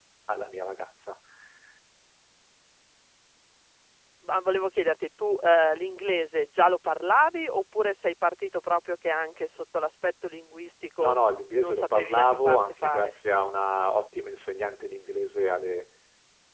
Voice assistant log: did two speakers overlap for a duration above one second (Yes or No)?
Yes